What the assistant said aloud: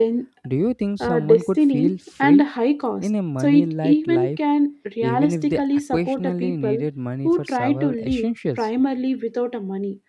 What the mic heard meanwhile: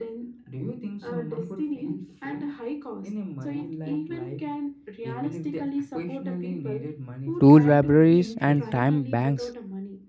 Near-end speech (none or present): present